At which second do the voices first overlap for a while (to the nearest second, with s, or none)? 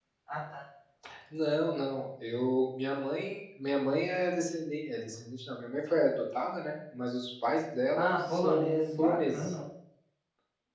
8 s